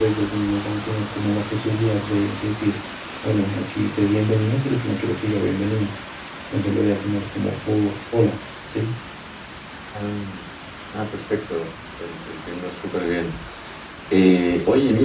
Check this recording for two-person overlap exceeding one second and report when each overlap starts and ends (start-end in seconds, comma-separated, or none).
none